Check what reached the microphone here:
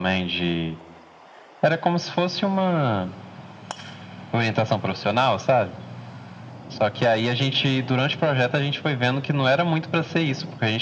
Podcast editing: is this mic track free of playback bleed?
No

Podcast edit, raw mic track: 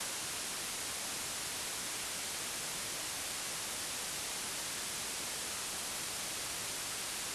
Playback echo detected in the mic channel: No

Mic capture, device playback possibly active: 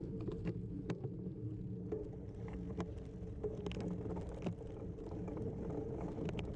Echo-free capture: Yes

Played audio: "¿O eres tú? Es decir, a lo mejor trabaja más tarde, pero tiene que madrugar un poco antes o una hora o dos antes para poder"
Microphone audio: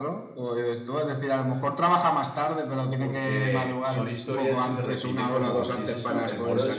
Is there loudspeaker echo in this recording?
Yes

